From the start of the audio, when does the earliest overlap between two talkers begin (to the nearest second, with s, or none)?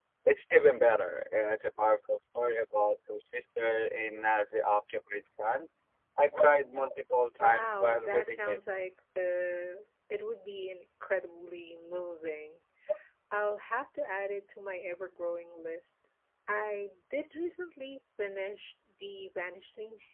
7 s